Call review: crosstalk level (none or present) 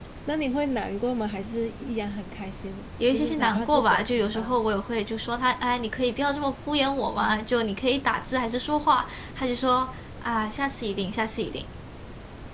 present